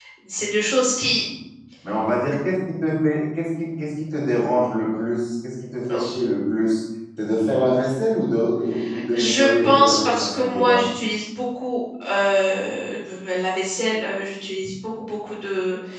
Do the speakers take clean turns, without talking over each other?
No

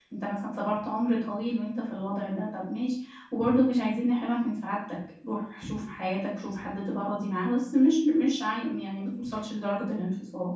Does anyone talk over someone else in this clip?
No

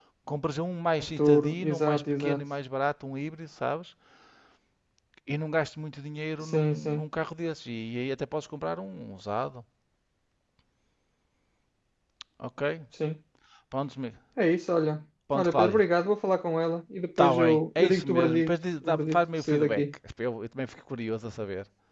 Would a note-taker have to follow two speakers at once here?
Yes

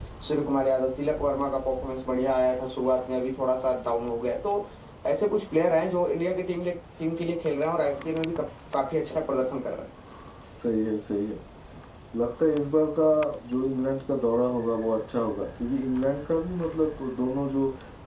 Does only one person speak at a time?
Yes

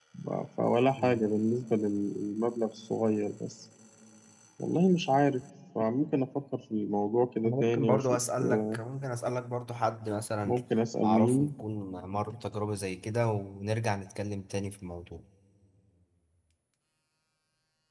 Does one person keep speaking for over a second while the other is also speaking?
Yes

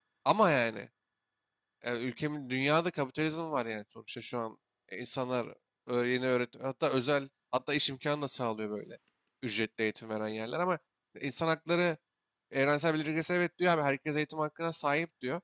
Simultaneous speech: No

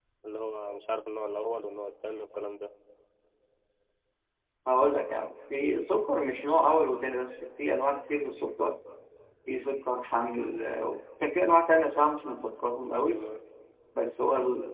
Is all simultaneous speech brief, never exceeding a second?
Yes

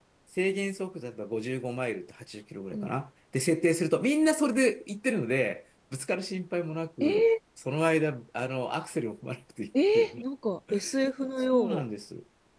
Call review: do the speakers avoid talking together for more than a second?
Yes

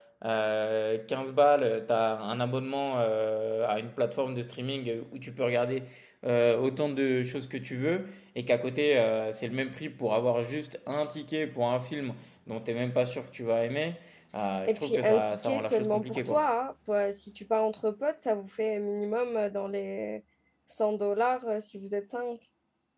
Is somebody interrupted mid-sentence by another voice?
Yes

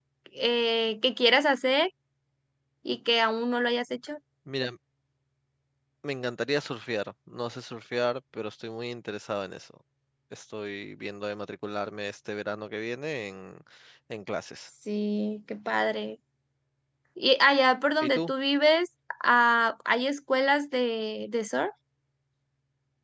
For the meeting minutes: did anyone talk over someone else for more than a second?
No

